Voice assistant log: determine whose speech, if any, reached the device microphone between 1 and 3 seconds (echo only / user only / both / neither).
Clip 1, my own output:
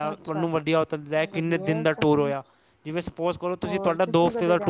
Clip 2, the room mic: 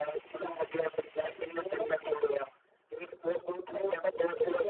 echo only